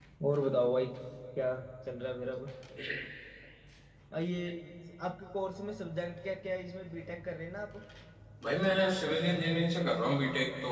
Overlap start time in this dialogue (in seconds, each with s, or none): none